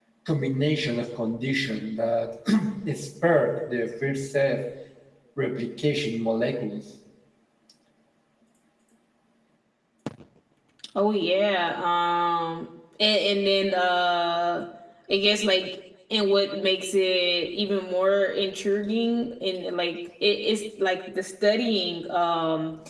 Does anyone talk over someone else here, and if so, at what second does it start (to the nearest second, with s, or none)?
none